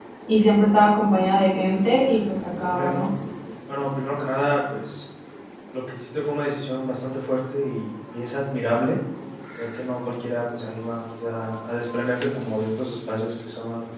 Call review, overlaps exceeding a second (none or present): none